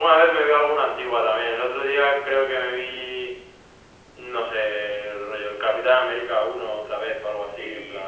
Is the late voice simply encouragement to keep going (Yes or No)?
No